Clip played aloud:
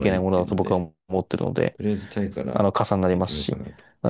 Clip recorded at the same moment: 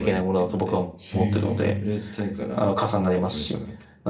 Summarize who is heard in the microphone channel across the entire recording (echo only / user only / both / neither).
both